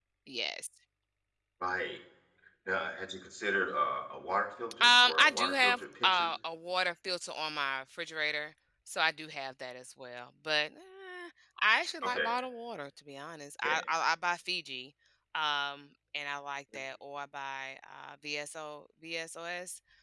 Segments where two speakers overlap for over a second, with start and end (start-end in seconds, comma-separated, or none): 4.8-6.3